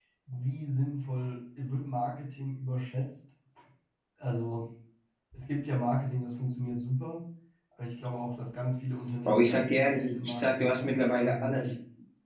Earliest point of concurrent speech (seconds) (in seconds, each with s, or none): 9.2 s